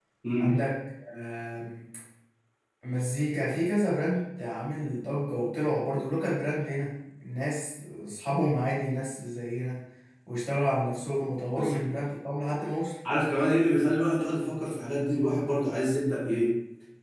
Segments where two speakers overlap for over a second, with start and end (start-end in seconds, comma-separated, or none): none